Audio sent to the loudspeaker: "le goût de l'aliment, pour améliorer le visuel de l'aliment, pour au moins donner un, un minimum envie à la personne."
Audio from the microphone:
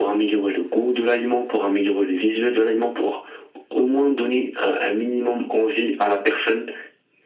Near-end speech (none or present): none